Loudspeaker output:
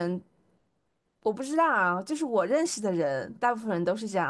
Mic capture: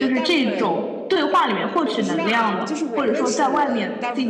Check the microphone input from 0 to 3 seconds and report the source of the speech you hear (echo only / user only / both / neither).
both